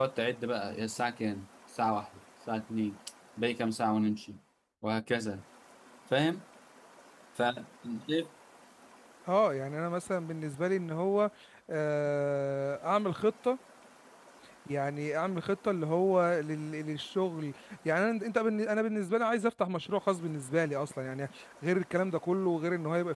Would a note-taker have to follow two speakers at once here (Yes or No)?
No